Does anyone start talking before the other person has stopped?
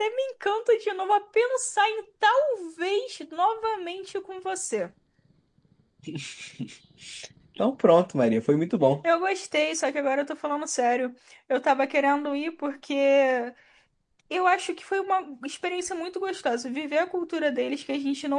No

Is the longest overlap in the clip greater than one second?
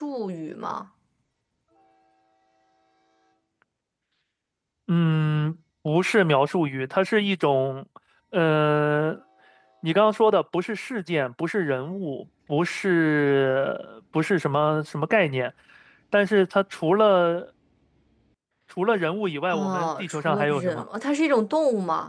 Yes, from 19.5 s

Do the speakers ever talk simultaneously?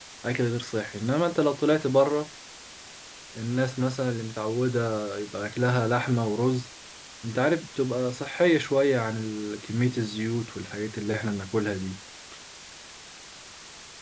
No

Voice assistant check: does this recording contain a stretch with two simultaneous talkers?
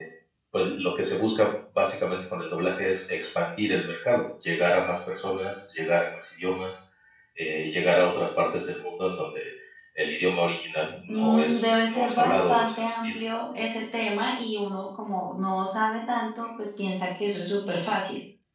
Yes, from 11.1 s

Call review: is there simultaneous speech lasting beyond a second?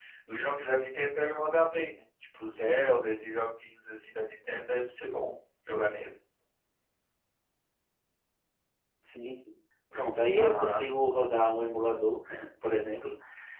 No

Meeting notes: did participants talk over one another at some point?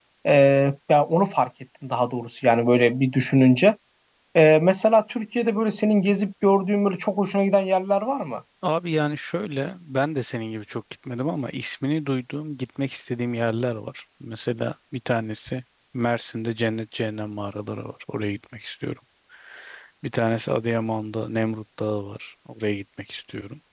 No

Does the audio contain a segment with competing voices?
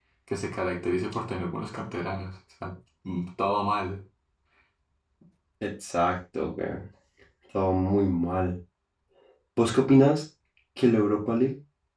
No

